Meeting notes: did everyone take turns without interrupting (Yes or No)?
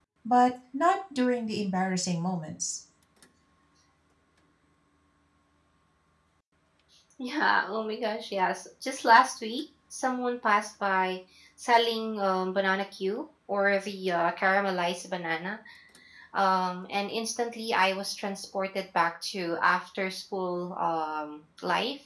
Yes